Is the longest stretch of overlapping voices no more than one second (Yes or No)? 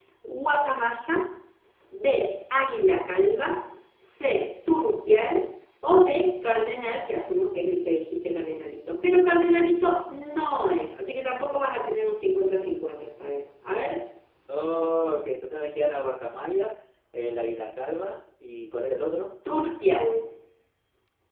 Yes